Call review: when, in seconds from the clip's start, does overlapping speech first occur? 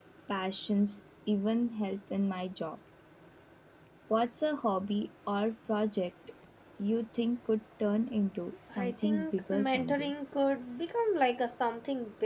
8.7 s

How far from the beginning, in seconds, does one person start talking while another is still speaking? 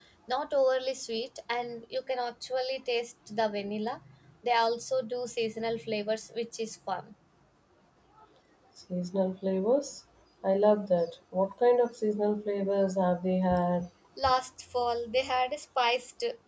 none

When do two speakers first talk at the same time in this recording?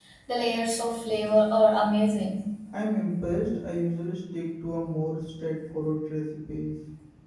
none

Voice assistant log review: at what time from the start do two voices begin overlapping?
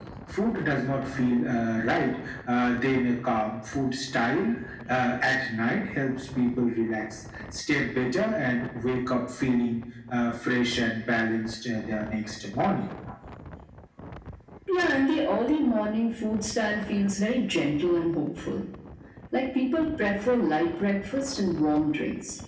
none

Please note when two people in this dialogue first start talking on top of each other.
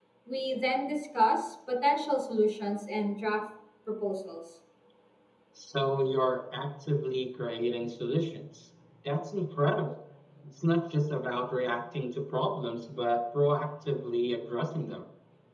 none

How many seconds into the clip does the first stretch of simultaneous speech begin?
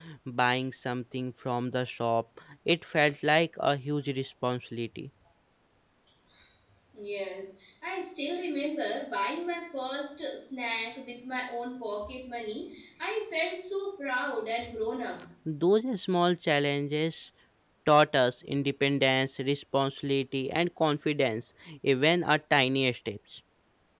none

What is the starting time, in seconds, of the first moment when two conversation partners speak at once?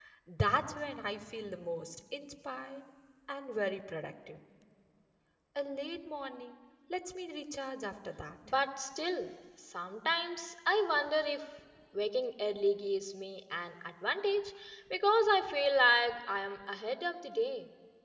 none

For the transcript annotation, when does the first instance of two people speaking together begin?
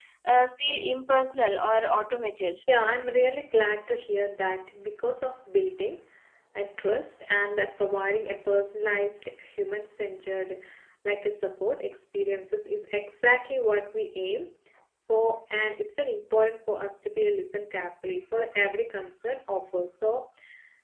none

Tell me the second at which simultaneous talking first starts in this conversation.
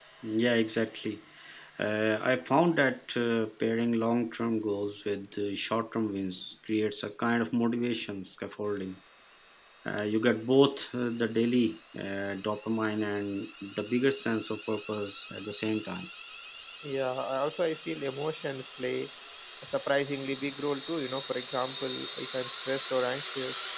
none

